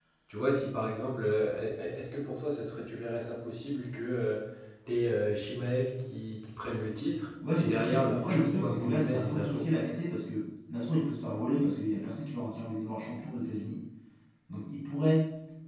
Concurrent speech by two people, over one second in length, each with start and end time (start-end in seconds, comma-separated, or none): 7.5-9.7